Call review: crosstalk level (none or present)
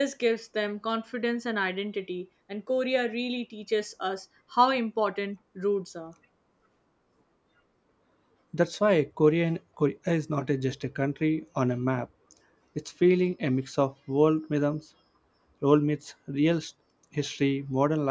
none